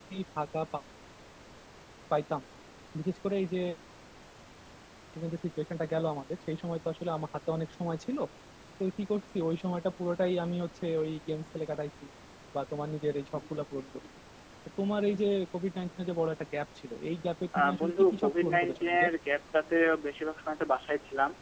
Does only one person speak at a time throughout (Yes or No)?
No